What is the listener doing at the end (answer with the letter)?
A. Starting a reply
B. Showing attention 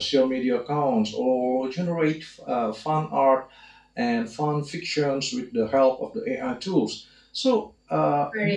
B